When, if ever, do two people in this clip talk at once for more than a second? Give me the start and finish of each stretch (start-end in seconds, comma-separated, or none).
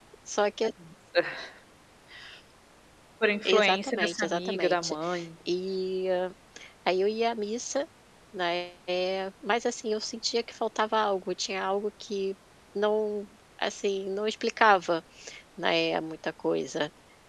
3.5-5.0